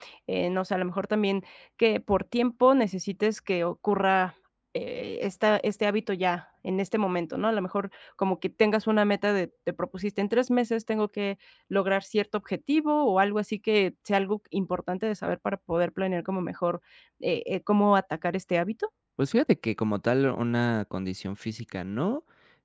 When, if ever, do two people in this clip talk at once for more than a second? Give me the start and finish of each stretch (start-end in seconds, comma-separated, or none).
none